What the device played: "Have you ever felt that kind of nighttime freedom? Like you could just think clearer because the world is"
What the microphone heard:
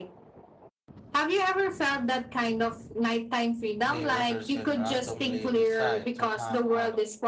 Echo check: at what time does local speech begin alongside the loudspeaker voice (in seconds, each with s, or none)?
3.9 s